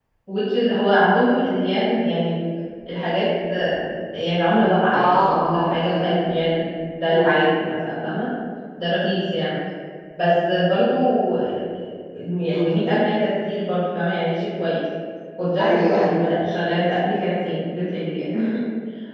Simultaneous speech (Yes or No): Yes